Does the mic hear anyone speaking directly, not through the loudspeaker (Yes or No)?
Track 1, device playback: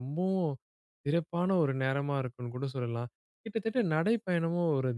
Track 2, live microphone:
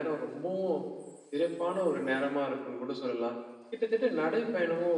No